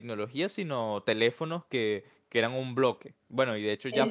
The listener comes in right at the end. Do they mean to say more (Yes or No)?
No